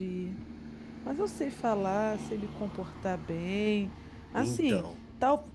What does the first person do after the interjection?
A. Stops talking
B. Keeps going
B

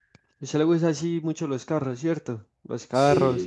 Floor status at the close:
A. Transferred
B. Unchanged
A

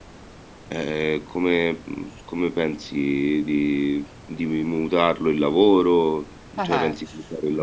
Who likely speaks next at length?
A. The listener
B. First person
A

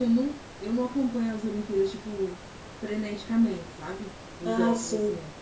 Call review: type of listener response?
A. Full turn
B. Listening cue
B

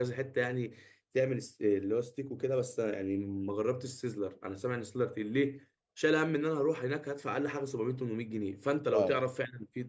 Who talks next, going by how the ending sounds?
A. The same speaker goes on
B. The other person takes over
A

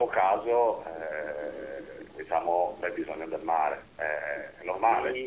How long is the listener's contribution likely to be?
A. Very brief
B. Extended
B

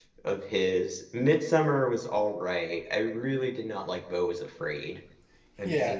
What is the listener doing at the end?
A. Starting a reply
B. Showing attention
A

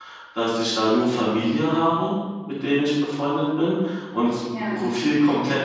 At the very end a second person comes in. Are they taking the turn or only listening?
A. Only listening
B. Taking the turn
A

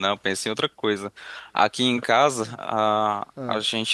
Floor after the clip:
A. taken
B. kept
B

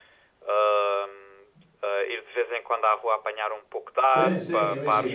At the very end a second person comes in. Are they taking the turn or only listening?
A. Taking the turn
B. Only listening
A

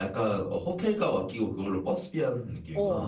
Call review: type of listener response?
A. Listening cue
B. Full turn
B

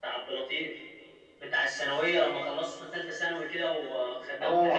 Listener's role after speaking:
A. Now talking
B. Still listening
A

